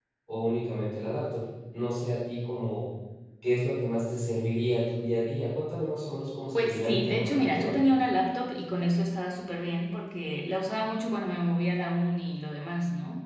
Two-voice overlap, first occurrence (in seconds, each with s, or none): 6.5 s